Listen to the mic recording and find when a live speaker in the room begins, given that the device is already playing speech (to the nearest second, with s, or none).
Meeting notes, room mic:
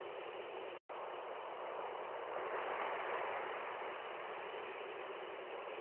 none